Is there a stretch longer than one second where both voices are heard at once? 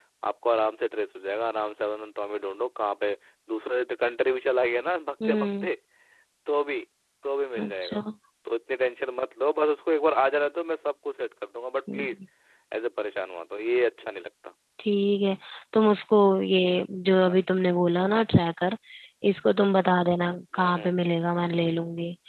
No

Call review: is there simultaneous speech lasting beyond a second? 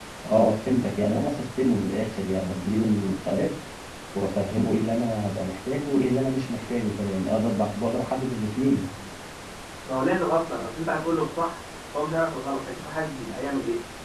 No

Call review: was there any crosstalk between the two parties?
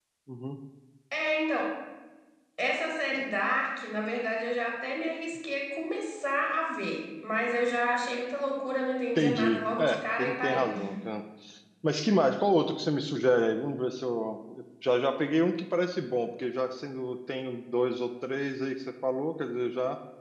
Yes, from 9.2 s

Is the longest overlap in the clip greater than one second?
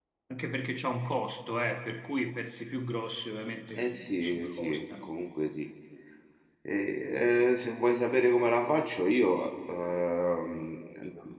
Yes, from 3.8 s

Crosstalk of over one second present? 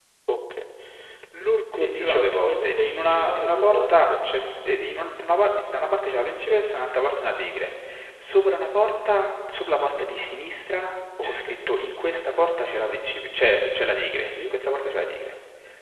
Yes, from 1.7 s

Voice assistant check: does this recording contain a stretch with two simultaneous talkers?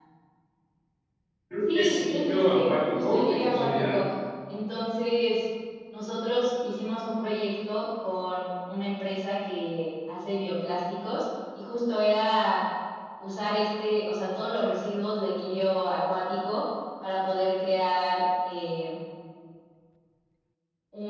Yes, from 1.7 s

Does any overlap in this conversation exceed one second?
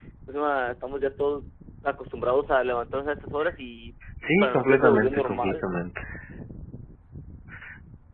Yes, from 4.4 s

